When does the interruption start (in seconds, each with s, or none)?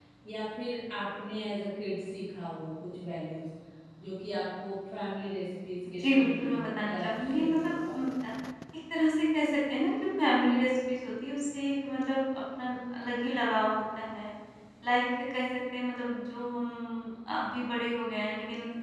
6.0 s